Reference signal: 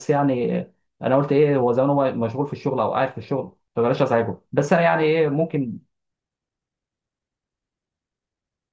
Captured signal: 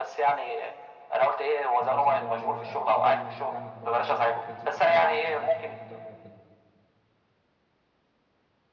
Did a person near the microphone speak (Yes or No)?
Yes